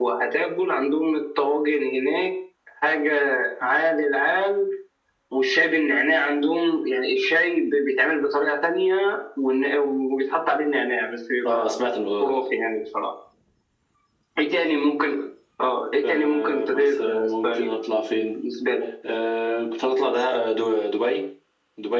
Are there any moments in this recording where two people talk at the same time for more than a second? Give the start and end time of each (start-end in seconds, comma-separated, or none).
16.0-17.7